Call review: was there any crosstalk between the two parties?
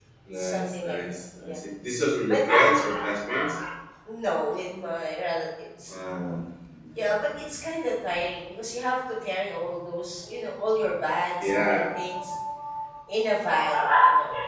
Yes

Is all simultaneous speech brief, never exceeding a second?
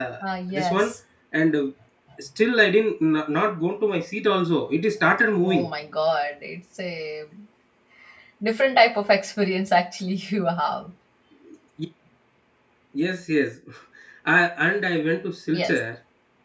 Yes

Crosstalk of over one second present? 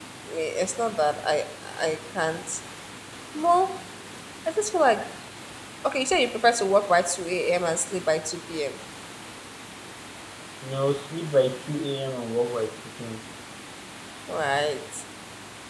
No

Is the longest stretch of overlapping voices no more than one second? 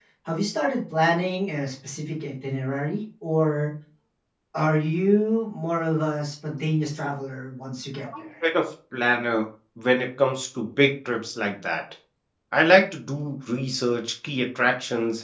Yes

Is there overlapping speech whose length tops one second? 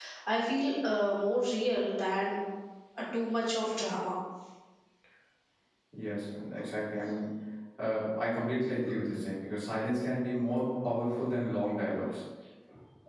No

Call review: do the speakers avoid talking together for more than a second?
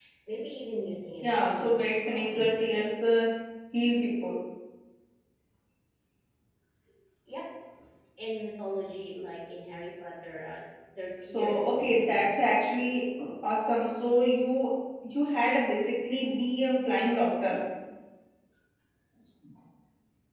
No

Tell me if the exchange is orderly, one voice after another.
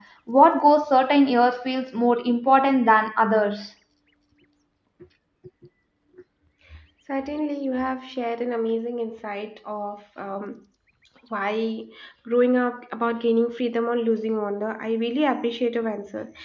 Yes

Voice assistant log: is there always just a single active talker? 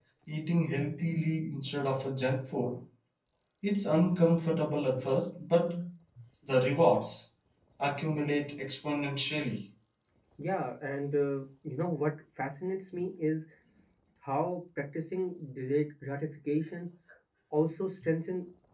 Yes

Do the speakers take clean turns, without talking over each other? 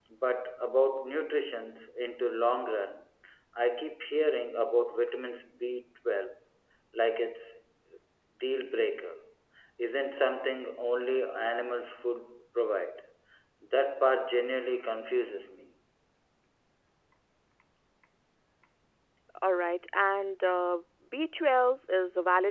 Yes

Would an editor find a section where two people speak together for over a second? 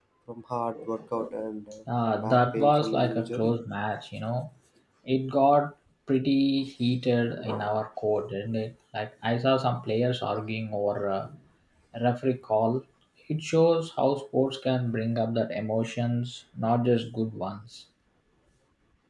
Yes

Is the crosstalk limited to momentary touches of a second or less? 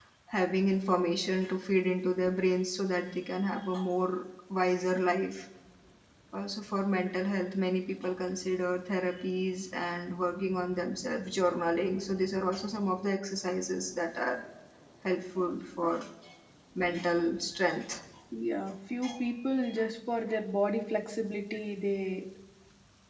Yes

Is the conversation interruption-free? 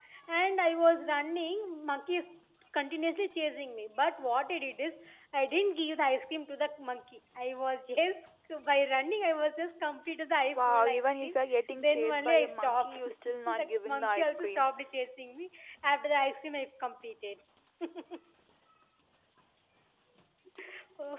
No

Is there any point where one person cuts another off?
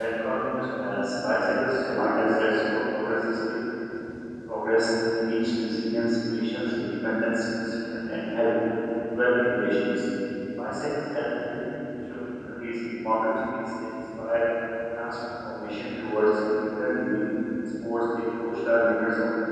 No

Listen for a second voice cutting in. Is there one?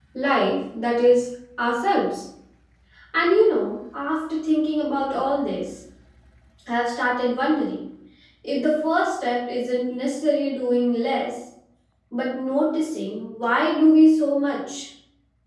No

